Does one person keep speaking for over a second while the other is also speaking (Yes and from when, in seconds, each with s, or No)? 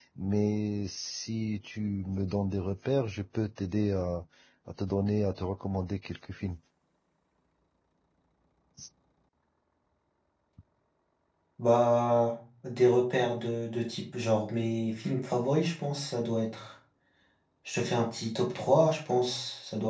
No